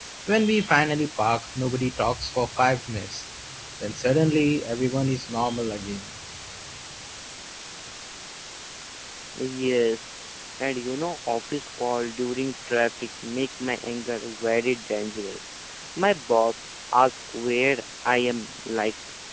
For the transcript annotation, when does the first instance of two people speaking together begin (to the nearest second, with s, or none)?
none